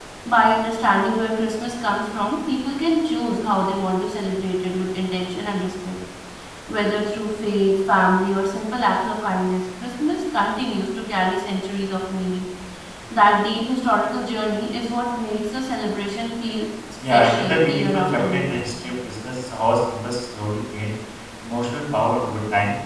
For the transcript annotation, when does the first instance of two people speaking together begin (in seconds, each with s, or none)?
17.0 s